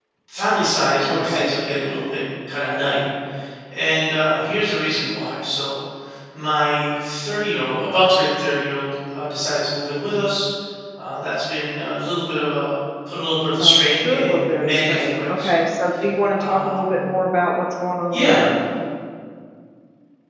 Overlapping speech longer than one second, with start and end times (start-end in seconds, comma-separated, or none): 13.6-15.5